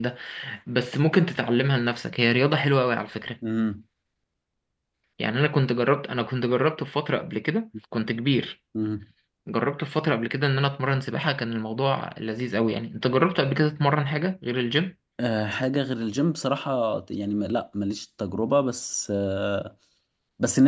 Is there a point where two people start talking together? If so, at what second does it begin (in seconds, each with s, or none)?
none